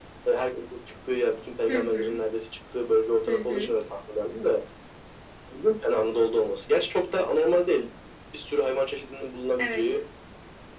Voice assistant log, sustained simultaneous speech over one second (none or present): none